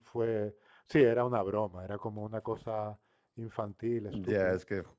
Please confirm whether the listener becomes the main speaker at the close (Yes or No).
Yes